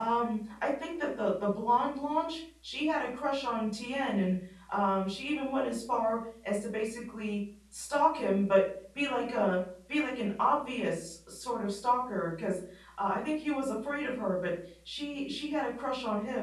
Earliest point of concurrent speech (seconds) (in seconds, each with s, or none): none